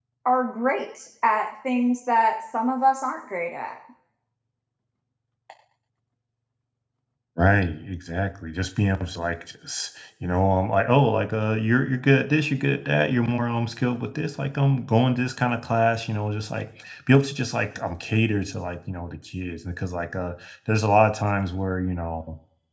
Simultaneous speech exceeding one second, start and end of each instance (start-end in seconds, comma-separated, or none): none